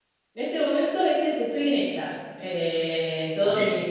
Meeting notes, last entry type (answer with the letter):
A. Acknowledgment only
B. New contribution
B